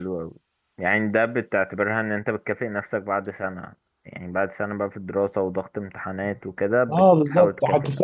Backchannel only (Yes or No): No